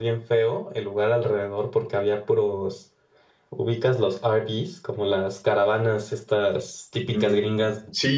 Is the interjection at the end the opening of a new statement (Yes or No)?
Yes